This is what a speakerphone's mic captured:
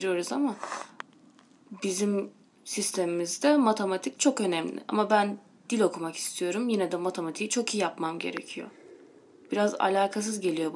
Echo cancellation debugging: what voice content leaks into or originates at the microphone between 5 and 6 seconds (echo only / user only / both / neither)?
echo only